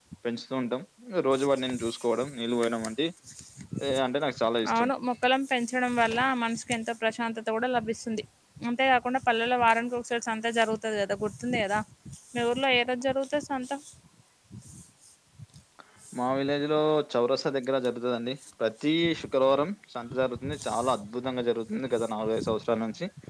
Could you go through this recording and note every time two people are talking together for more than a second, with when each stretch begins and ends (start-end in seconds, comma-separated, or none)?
none